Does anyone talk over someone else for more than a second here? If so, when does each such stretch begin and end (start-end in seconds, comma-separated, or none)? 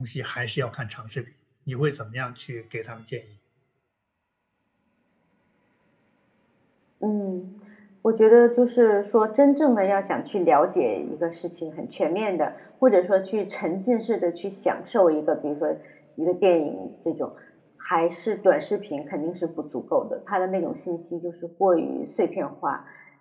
none